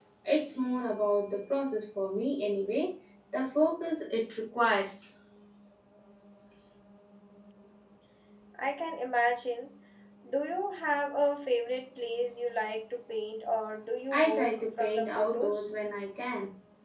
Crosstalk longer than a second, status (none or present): present